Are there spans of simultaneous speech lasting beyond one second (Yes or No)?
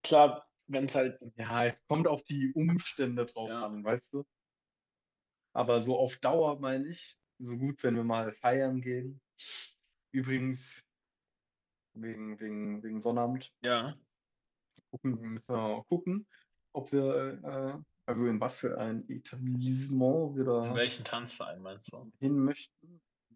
No